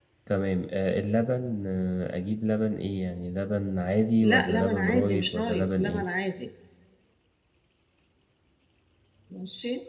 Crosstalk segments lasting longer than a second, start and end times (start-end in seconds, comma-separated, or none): 4.2-6.0